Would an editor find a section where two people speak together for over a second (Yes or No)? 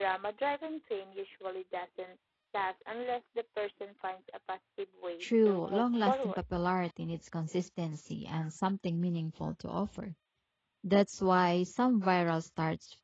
Yes